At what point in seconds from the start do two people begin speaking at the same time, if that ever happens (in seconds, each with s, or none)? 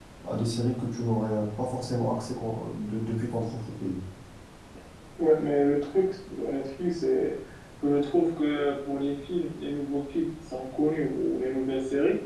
none